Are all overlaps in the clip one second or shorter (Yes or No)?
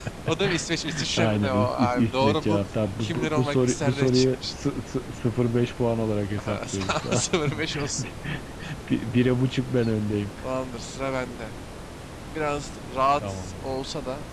No